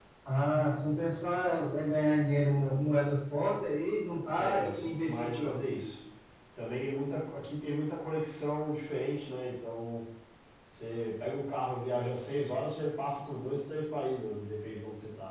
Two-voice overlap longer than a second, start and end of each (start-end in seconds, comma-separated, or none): 4.4-5.7